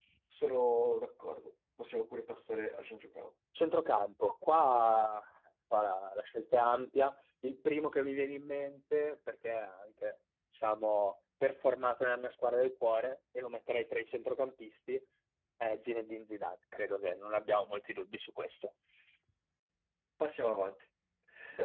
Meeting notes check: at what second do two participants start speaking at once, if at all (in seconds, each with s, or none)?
none